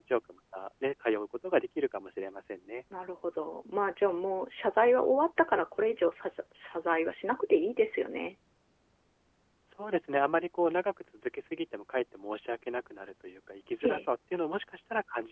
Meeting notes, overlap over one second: none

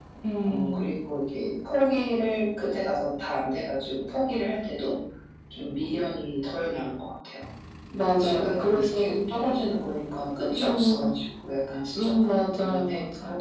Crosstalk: present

